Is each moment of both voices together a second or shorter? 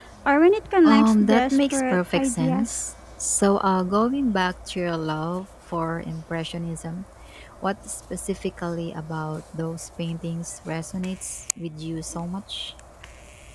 No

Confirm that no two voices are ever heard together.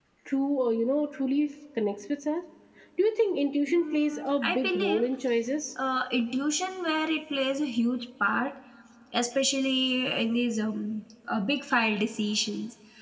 No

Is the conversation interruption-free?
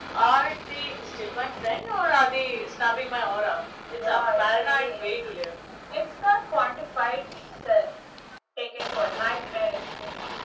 No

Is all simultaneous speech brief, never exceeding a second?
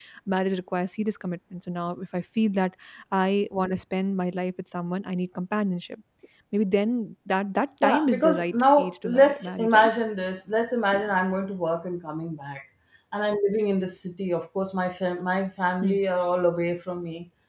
No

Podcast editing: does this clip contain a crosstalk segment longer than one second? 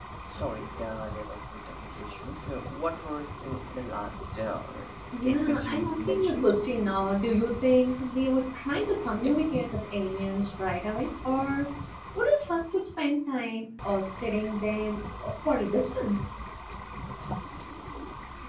Yes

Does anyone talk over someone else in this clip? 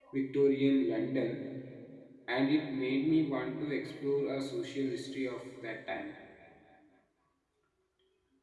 No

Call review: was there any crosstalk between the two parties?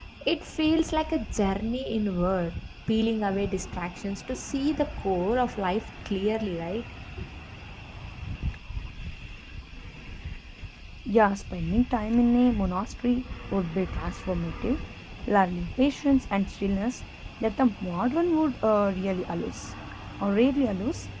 No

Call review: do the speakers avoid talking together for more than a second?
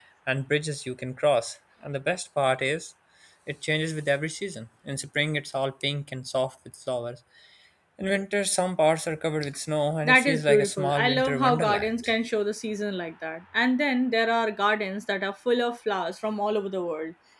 No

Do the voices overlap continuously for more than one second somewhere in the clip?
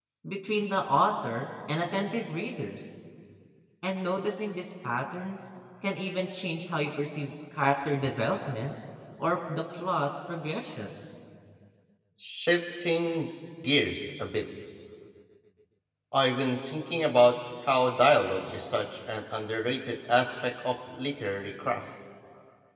No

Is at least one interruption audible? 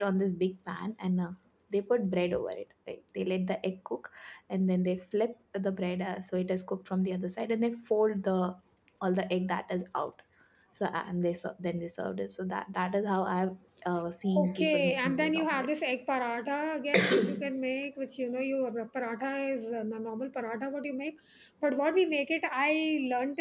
Yes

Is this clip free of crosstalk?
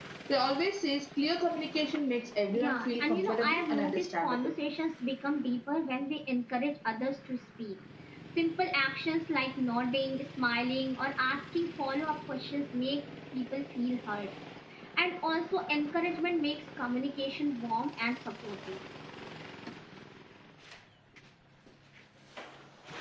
No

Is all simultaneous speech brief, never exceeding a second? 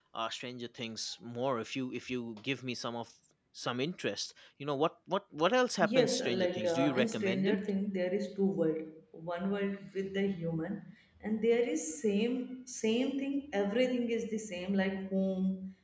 No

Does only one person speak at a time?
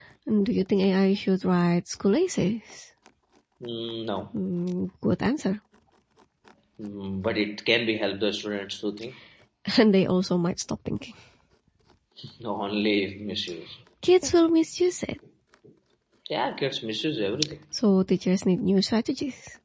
Yes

